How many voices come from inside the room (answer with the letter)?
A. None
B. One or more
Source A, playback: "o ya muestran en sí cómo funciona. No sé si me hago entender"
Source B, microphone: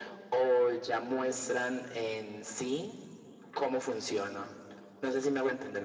A